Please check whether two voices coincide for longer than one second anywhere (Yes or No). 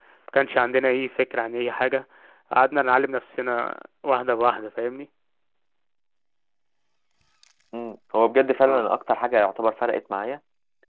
No